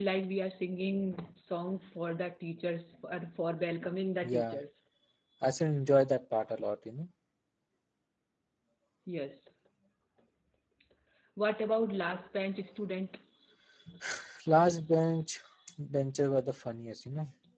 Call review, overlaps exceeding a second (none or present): none